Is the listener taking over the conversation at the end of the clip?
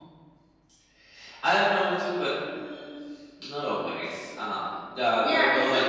Yes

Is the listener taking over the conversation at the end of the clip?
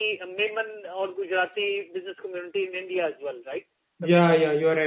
Yes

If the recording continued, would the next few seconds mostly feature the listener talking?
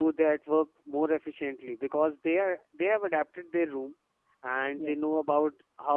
No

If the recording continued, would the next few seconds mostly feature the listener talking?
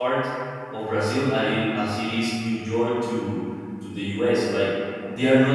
No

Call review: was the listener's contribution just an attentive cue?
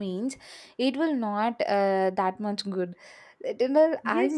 No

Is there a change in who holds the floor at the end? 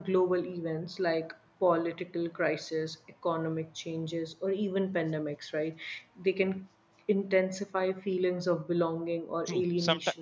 Yes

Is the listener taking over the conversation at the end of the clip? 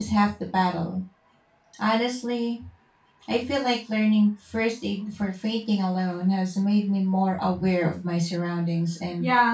Yes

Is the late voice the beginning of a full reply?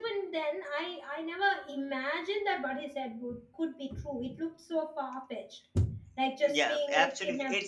Yes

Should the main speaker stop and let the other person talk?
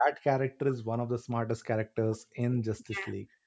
Yes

